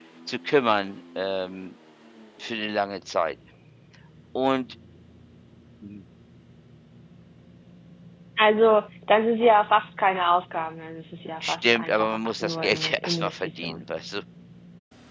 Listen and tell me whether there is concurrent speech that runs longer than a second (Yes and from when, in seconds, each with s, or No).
Yes, from 11.4 s